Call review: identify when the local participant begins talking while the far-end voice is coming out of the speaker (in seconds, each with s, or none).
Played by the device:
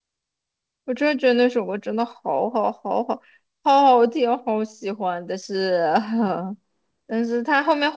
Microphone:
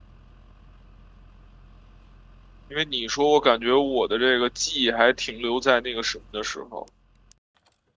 2.7 s